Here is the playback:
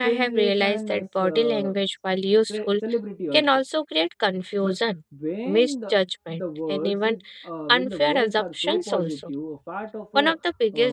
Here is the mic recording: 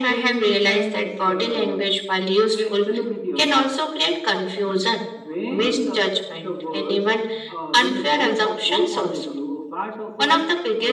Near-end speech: none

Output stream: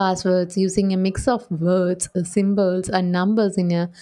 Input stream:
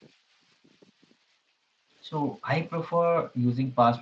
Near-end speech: present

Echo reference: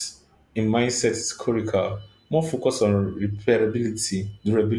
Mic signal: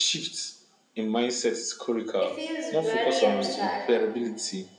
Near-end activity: present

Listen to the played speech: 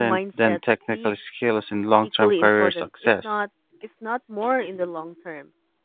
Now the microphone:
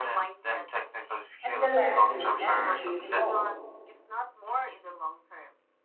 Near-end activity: present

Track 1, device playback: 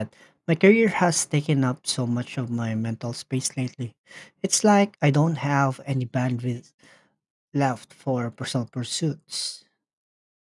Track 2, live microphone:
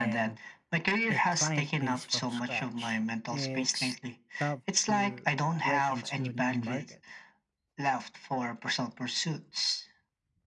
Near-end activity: present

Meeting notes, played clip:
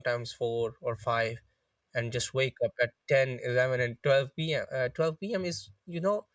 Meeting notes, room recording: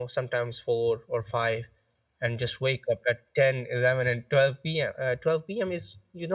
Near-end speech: none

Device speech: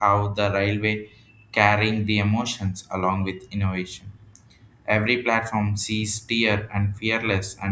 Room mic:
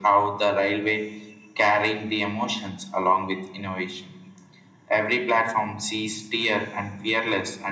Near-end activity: none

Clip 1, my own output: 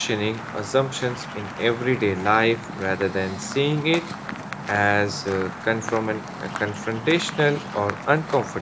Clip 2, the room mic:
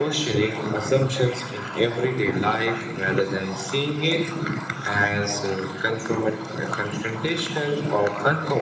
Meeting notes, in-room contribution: none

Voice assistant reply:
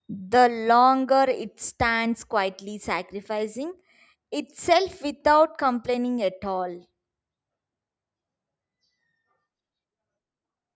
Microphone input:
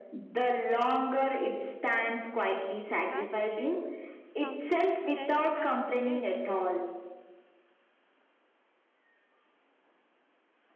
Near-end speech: present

